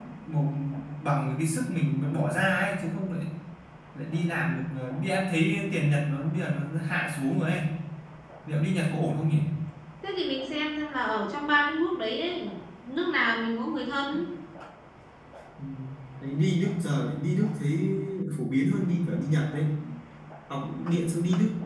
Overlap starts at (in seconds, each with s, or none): none